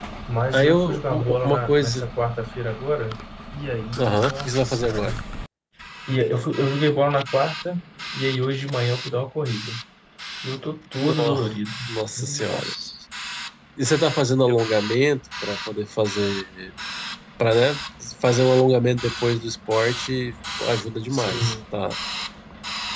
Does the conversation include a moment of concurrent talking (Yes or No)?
Yes